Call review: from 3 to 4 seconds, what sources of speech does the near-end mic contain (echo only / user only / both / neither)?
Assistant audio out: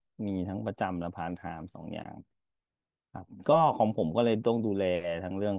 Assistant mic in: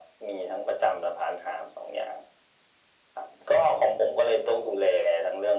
echo only